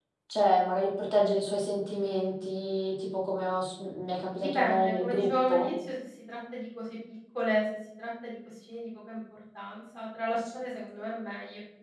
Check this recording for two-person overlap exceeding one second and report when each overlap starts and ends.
4.4-5.7

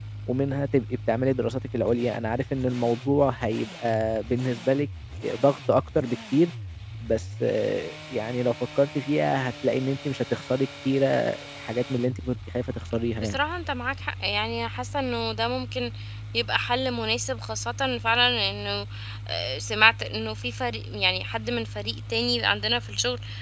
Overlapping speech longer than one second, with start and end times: none

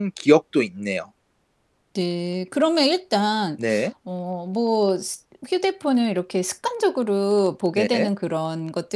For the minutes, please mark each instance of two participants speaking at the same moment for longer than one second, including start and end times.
none

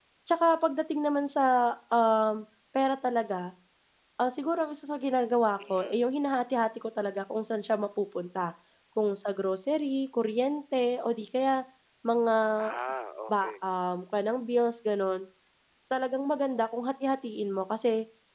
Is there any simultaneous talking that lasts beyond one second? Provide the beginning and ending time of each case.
none

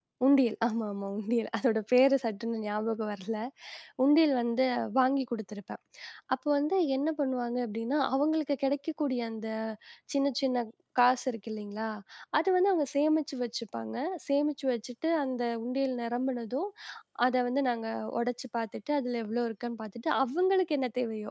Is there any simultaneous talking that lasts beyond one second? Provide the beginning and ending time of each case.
none

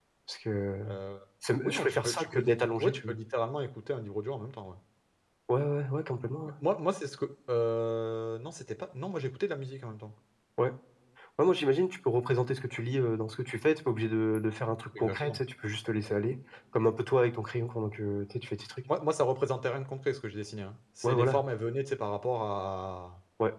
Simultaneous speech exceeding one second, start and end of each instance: 1.6-3.1

